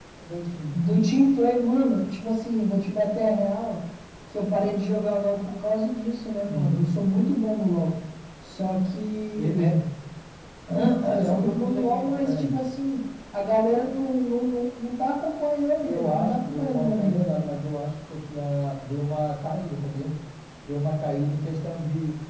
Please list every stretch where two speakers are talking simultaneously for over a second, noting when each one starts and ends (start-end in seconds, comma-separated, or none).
11.2-12.5, 15.7-17.6